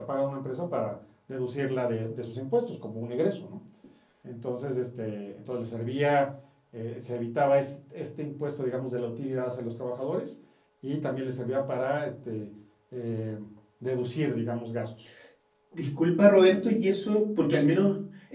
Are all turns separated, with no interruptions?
Yes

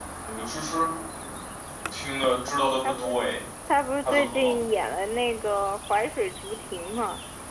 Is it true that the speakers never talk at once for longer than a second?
Yes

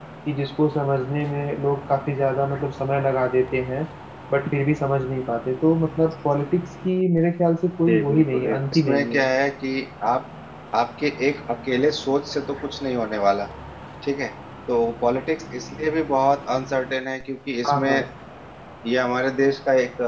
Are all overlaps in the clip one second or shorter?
No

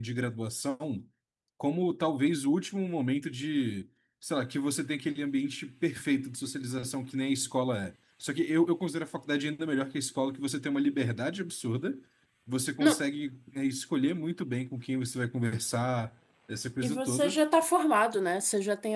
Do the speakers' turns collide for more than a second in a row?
No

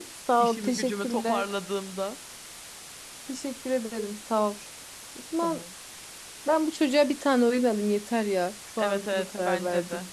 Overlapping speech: Yes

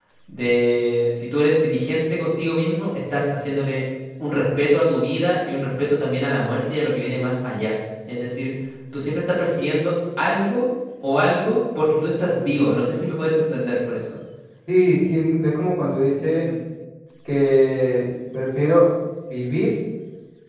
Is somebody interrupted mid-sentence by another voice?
No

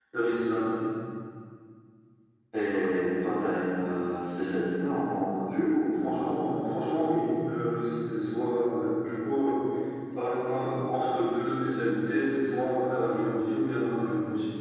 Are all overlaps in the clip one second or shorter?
Yes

